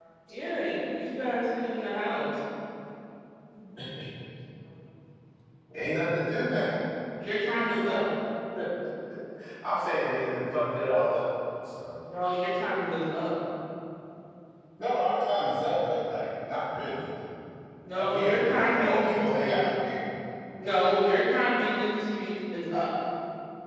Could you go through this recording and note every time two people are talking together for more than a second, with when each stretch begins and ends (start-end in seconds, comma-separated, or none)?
17.9-19.7